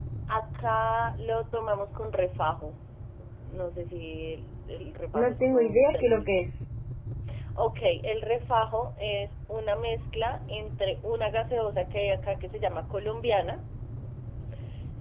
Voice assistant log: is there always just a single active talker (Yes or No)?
No